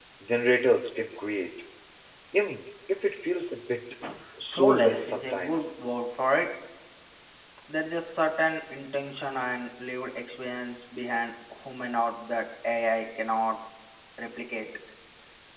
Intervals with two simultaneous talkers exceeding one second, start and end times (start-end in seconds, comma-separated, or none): 4.4-5.7